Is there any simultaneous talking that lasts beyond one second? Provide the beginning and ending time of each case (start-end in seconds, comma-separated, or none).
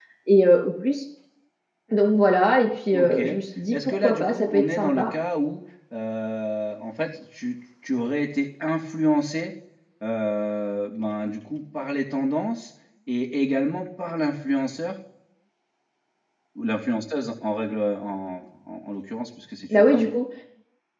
3.7-5.0